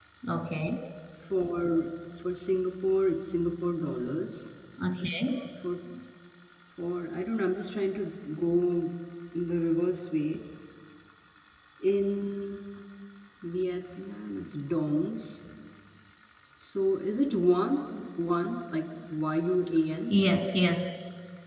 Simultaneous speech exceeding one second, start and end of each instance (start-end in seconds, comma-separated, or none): none